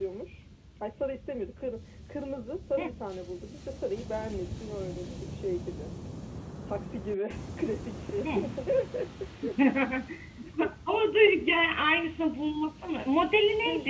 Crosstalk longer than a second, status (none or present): none